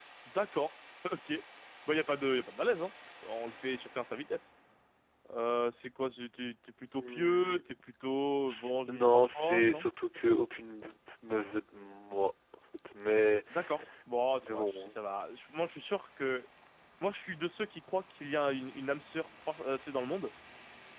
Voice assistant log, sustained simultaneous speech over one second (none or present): present